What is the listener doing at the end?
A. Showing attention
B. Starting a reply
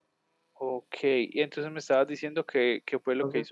B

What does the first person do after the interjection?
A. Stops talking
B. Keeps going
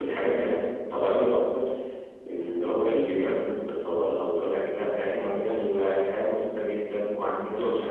B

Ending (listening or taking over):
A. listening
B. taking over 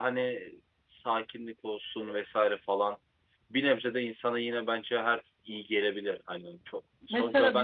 B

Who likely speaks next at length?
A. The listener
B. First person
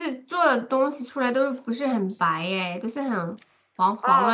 A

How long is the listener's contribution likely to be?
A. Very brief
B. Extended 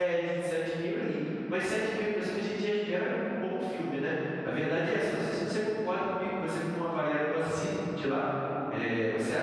A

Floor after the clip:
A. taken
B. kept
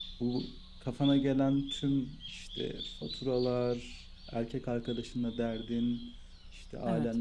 B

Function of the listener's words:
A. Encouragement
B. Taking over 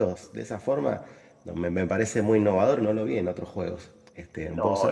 B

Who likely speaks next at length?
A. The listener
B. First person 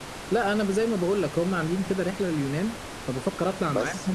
B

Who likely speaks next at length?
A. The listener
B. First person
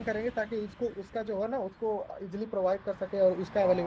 A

